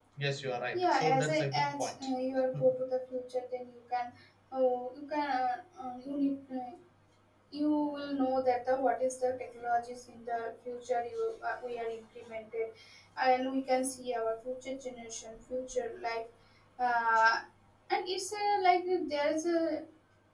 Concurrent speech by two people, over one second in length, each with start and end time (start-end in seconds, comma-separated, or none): 0.7-2.0